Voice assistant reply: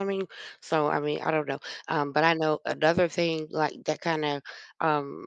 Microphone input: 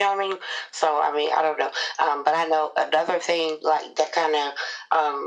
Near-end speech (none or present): none